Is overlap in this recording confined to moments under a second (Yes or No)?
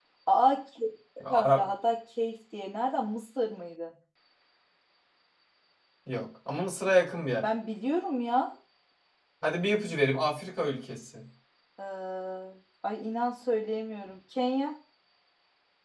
Yes